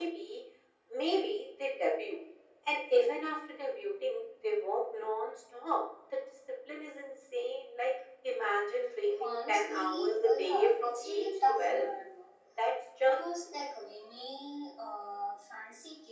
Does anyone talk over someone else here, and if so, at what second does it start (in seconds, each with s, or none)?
9.2 s